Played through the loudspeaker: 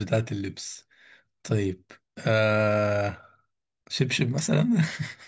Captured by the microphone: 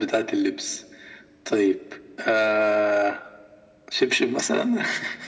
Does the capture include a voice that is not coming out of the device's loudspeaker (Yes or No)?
No